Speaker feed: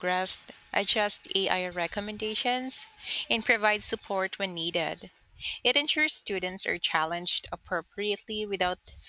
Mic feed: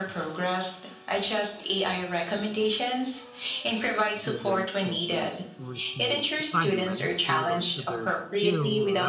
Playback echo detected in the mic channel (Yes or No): Yes